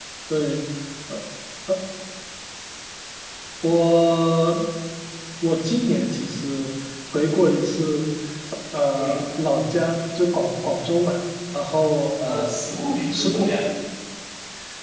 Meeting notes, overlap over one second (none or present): none